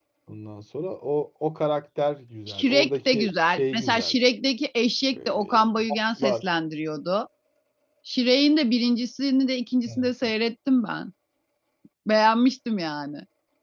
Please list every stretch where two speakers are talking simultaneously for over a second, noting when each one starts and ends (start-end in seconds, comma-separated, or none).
2.5-4.2, 5.2-6.4